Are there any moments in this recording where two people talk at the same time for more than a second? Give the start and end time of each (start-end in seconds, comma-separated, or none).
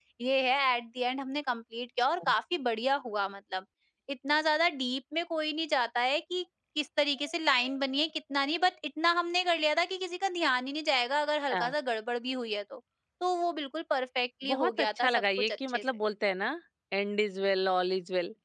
14.5-15.8